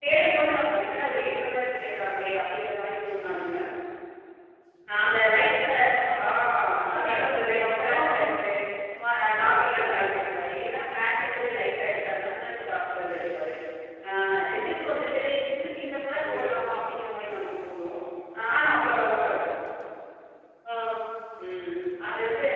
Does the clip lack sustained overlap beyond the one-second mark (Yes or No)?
No